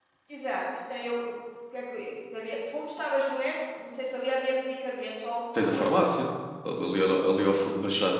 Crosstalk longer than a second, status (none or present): none